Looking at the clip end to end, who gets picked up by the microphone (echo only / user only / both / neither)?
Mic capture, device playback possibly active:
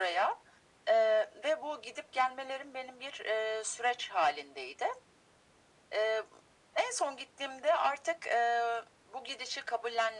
echo only